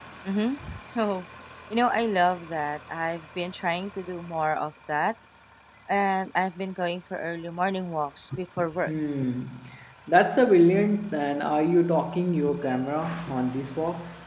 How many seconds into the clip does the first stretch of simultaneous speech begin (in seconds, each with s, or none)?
none